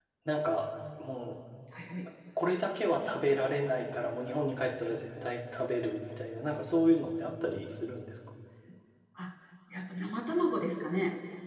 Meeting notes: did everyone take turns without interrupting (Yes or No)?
Yes